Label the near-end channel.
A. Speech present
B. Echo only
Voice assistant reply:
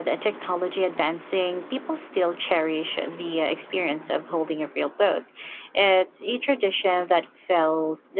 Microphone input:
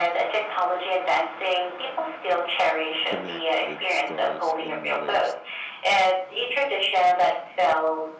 A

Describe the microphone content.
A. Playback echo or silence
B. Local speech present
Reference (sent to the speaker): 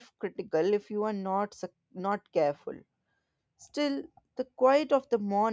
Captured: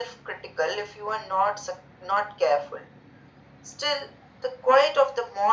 A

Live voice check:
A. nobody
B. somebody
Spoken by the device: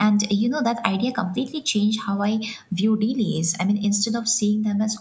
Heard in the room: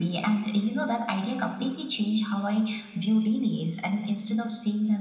A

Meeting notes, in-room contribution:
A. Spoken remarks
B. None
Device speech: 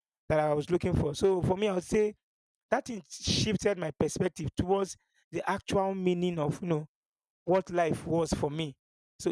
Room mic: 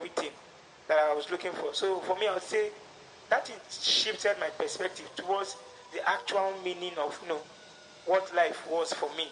B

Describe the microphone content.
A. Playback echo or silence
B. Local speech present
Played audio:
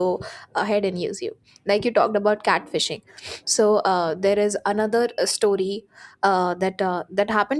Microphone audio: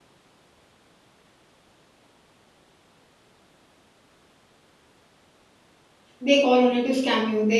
B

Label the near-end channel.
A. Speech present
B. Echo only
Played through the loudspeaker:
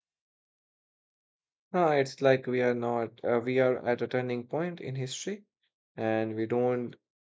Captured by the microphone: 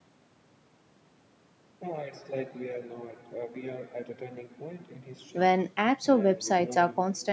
A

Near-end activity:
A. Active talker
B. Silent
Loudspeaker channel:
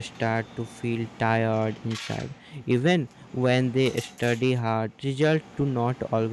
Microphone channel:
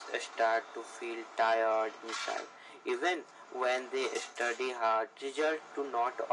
B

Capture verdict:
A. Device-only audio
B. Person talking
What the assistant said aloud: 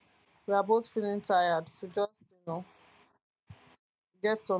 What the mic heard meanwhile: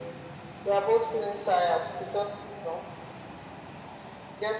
A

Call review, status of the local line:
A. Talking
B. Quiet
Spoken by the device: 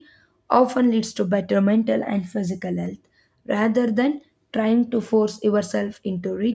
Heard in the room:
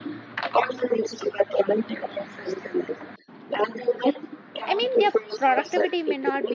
A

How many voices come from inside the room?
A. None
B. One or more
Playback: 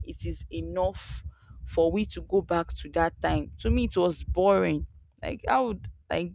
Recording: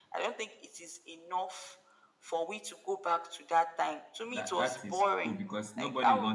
B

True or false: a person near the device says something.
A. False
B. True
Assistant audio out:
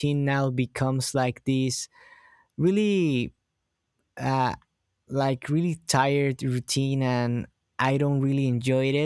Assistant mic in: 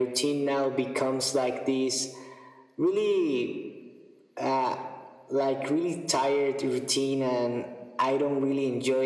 A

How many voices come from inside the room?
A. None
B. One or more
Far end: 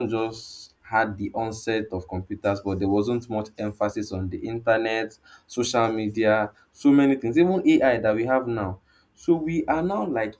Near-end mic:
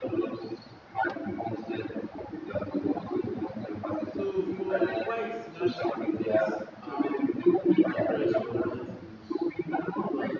B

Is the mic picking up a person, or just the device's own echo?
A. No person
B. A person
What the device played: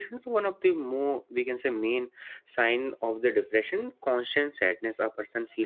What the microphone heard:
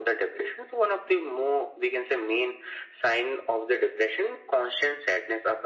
A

